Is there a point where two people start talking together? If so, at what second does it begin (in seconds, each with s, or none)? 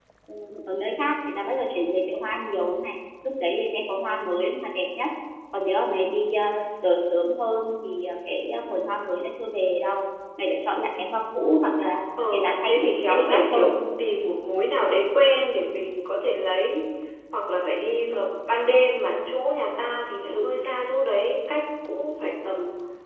12.2 s